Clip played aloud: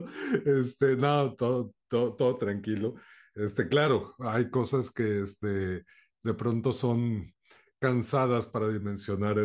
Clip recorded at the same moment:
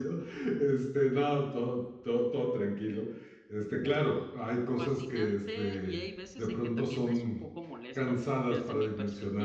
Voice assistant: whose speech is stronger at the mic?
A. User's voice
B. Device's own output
B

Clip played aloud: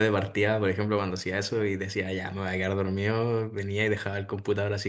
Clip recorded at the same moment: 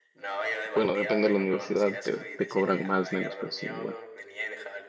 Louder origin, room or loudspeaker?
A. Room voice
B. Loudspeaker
A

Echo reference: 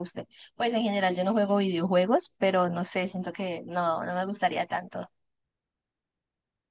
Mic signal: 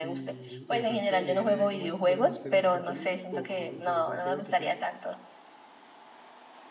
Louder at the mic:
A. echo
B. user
A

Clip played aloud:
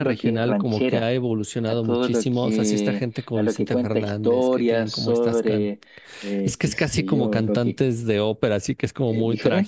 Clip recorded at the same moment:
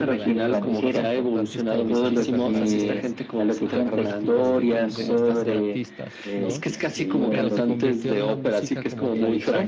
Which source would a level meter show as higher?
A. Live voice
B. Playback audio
B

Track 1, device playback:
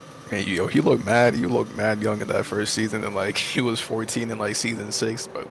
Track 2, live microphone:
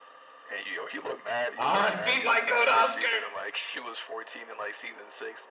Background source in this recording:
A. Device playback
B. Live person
A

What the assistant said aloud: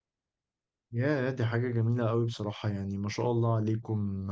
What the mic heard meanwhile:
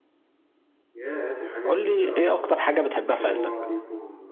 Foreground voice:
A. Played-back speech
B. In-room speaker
B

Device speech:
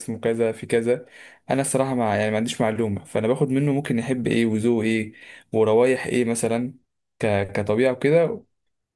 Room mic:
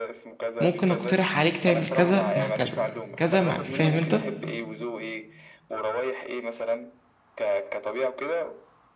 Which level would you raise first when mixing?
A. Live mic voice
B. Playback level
B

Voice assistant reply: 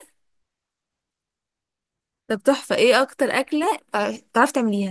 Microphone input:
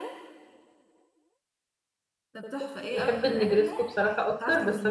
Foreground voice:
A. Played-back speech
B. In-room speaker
B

